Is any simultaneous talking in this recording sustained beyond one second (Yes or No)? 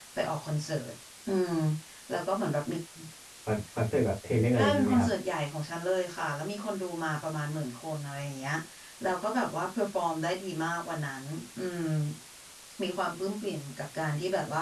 No